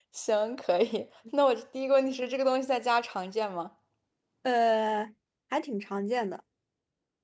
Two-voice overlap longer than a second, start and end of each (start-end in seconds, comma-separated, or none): none